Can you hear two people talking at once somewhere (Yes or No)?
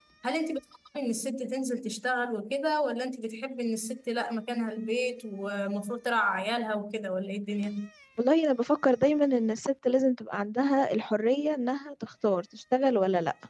No